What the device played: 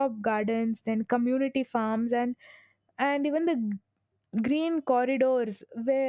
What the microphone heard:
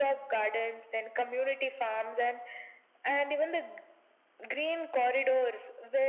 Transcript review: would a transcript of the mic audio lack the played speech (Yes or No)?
No